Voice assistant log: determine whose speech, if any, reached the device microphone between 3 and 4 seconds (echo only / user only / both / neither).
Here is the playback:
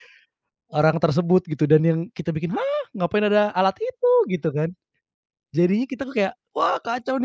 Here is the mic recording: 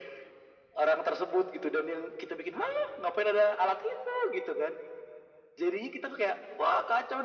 echo only